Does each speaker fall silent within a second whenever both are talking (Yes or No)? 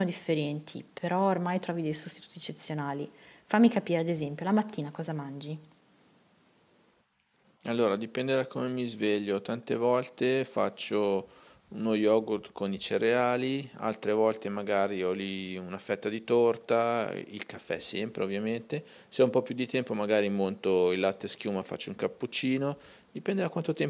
Yes